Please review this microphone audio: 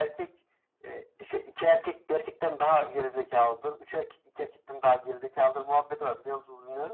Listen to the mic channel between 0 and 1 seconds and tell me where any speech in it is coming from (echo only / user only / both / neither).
echo only